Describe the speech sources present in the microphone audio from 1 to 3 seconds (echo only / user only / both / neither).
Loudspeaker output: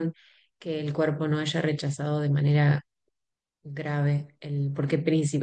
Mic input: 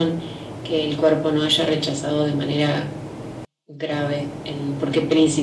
echo only